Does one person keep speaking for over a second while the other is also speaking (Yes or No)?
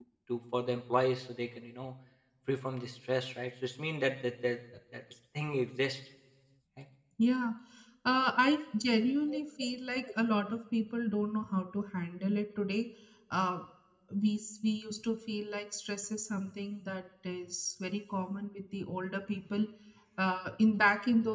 No